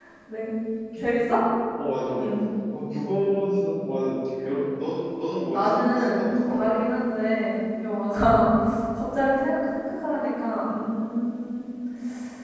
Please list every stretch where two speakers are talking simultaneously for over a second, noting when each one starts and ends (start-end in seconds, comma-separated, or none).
5.4-6.6